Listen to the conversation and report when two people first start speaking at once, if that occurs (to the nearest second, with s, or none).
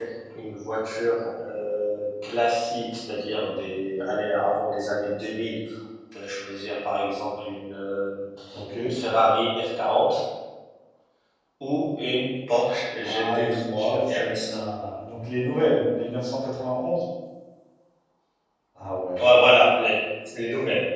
13 s